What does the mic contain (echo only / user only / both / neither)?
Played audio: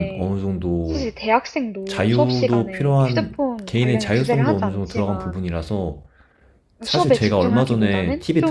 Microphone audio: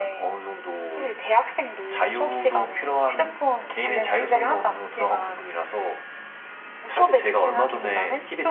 echo only